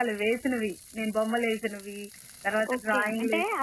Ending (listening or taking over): taking over